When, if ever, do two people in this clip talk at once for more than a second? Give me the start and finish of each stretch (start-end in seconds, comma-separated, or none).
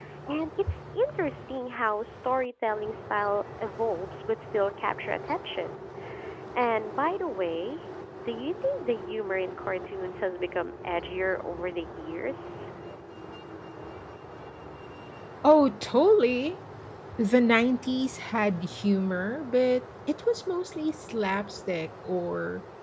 none